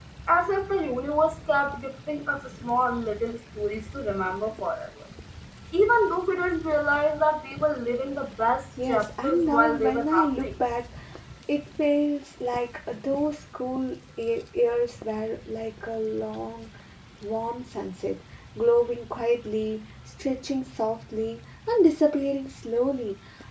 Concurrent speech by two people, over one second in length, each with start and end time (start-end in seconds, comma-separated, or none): 8.9-10.5